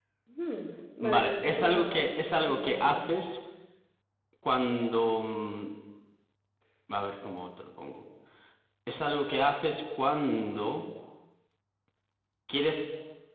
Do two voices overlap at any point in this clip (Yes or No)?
Yes